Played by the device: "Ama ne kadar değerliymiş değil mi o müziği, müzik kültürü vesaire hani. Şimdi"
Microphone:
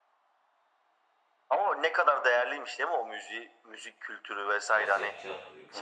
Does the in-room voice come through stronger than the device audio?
No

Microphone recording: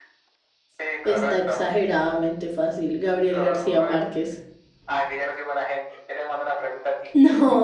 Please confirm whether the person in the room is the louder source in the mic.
Yes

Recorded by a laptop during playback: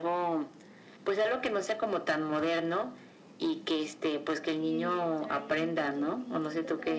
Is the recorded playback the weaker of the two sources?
No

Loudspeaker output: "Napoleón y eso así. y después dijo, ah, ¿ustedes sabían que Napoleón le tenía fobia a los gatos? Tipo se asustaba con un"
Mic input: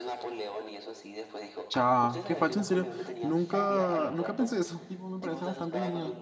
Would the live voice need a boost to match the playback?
No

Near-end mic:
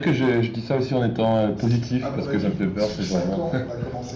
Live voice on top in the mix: No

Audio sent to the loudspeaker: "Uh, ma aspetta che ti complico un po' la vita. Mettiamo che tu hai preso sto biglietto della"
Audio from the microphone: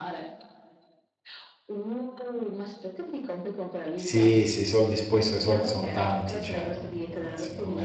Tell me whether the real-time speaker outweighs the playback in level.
Yes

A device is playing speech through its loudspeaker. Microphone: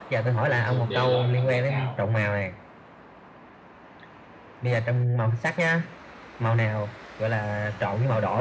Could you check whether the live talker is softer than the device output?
Yes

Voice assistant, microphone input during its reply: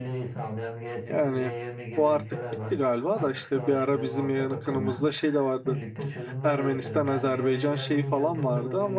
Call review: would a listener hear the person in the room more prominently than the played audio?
Yes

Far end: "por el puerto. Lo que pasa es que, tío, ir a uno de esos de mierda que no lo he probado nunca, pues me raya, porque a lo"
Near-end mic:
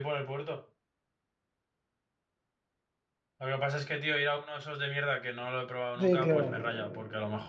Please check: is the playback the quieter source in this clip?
Yes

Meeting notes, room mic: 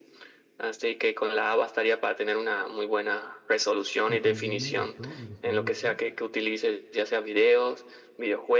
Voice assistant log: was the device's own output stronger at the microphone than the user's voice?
Yes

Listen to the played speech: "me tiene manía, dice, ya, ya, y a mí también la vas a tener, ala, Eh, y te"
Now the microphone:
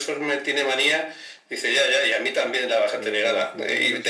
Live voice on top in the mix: No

